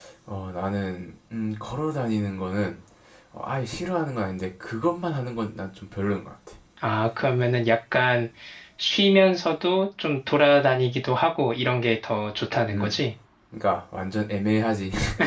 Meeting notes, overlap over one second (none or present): none